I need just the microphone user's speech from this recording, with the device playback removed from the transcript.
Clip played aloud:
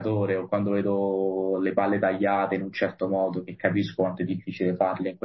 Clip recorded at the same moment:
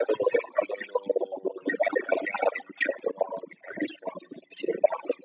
none

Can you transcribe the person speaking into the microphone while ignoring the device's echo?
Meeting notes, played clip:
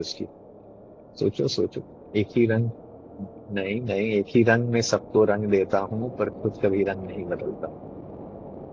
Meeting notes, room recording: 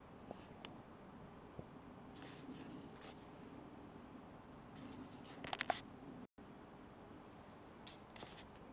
none

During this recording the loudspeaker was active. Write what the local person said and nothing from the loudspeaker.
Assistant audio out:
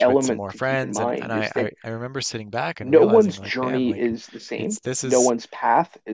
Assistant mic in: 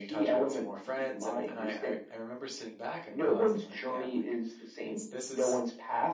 none

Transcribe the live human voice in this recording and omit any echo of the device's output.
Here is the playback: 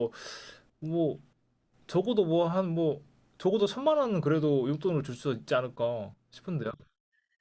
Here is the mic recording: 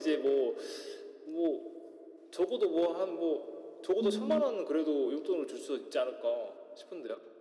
음,

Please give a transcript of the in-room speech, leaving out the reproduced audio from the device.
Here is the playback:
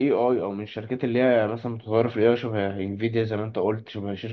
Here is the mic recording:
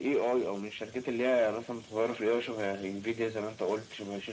none

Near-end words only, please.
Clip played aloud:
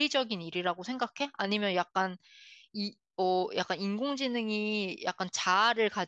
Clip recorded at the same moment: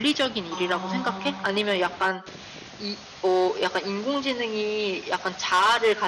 아,

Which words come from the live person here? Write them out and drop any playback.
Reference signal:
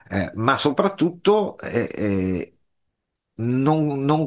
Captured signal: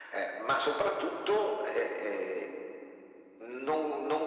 none

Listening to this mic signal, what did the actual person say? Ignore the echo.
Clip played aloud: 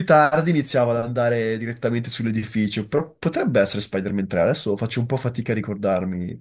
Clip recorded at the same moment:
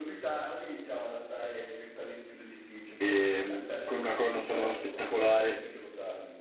ehm, con una colonna sonora spettacolare,

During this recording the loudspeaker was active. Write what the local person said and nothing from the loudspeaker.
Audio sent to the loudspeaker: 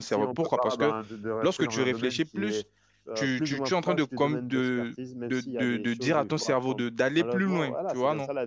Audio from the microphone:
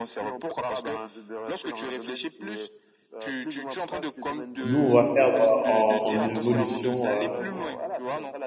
Nous, on va perdre en, en évolution, euh,

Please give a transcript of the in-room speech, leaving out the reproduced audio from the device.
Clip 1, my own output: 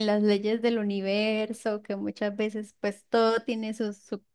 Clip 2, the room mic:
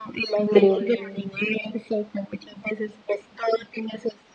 Creo que

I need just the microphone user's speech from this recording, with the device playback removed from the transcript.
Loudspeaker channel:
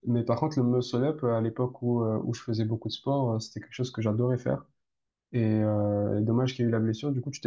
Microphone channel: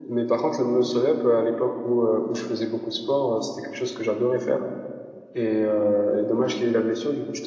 none

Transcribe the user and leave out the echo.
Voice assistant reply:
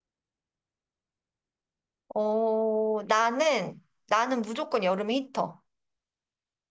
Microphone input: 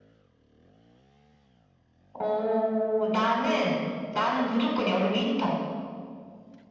none

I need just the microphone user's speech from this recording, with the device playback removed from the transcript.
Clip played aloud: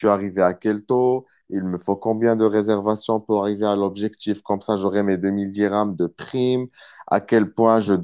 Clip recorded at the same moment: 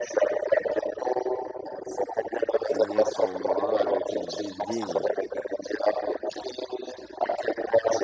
finir ton mois avec une vie digne.

